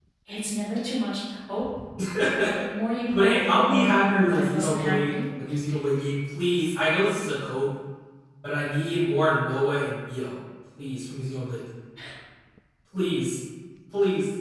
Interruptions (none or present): present